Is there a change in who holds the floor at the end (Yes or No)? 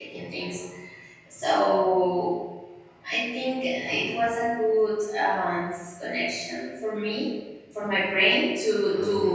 Yes